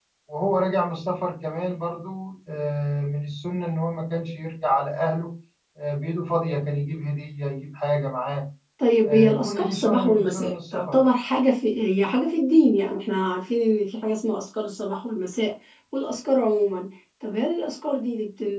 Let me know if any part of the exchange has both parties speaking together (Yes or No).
Yes